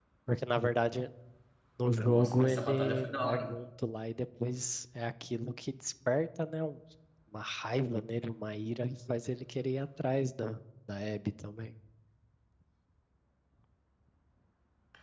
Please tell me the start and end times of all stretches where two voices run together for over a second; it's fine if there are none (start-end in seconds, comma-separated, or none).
2.0-3.5